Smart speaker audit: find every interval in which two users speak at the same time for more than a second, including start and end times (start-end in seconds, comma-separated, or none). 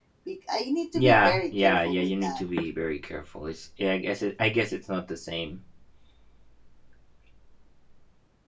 0.9-2.4